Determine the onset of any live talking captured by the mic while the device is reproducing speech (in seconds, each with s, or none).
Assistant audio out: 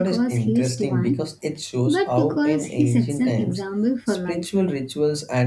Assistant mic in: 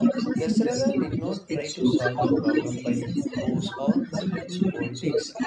0.3 s